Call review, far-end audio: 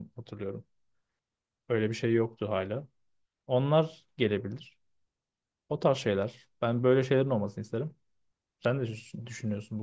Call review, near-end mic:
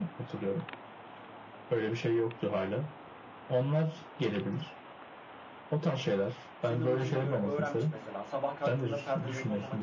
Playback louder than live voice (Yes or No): Yes